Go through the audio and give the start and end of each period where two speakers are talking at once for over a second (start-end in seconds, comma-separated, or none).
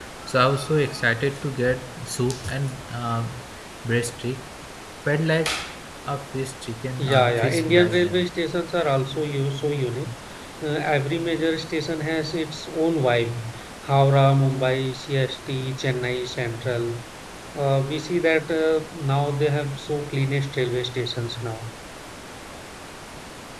7.0-8.2